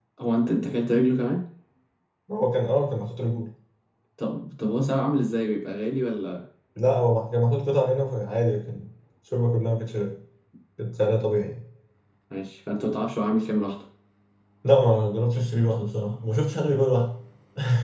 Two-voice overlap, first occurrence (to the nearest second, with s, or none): none